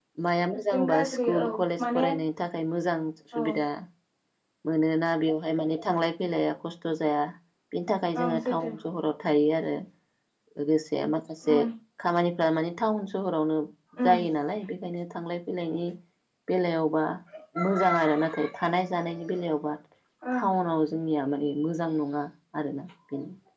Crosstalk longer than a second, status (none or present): present